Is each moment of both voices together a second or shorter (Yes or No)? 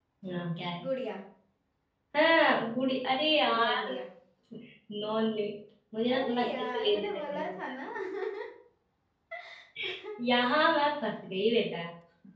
No